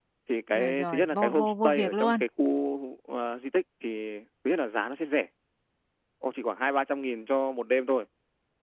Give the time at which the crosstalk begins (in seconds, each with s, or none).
0.5 s